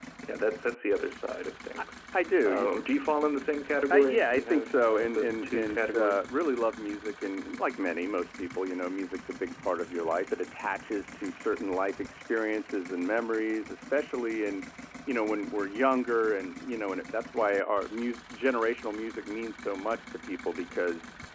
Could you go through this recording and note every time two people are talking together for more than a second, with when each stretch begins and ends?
3.9-6.2

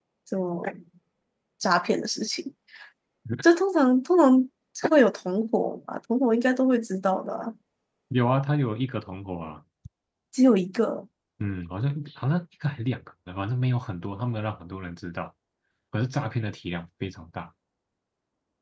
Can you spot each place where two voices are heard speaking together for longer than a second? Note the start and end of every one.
none

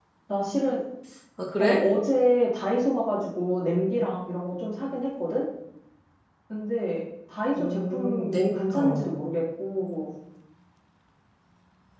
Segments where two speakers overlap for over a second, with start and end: 7.6-9.1

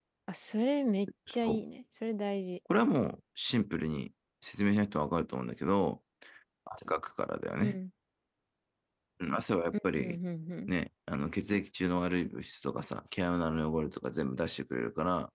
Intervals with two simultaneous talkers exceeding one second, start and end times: none

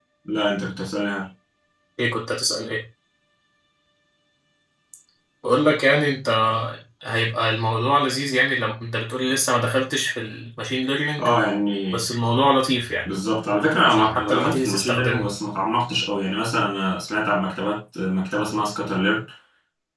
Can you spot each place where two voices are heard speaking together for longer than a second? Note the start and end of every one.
13.8-15.2

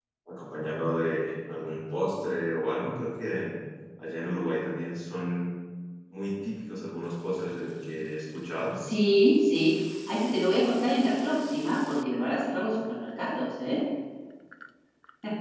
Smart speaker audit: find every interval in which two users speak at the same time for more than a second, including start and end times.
none

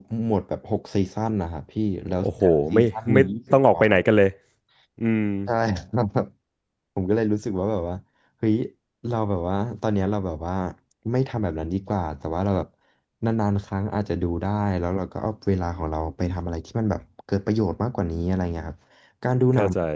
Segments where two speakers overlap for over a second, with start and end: 2.2-3.9

